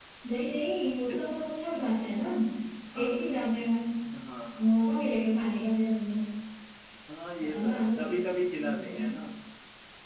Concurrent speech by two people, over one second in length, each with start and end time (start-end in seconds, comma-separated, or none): 7.4-9.0